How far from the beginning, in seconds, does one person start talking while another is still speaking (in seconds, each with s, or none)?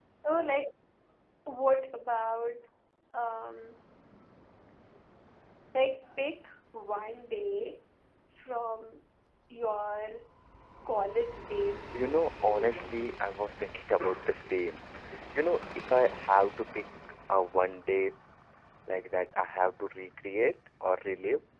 11.9 s